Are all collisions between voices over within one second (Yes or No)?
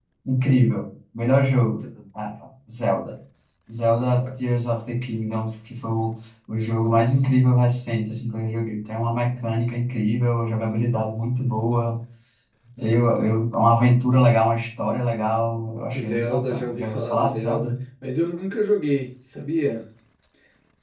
No